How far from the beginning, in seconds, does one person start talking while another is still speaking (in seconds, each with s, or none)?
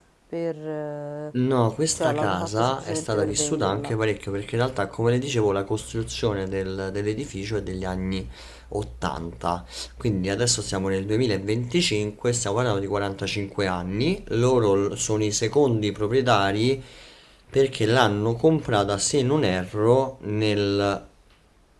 1.9 s